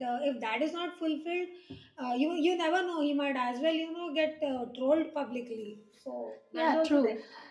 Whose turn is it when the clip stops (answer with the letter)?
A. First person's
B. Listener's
B